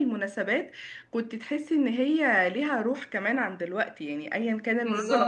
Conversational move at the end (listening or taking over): taking over